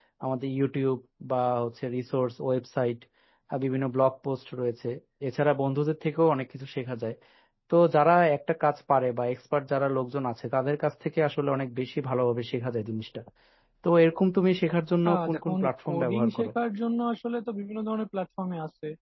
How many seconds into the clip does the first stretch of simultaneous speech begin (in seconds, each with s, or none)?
15.0 s